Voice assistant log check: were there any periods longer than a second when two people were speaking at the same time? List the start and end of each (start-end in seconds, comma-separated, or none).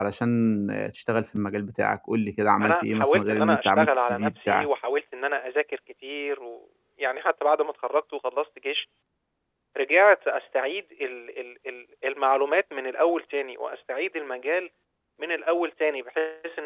2.6-4.7